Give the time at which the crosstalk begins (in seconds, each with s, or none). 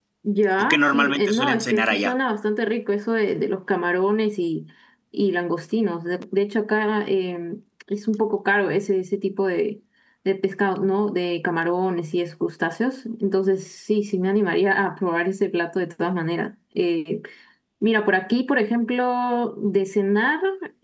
0.6 s